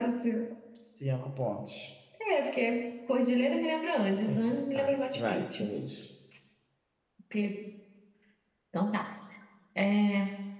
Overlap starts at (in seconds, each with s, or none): 4.1 s